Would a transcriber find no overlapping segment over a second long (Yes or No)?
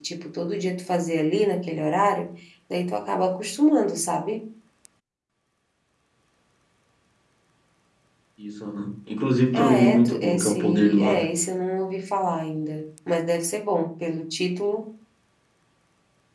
No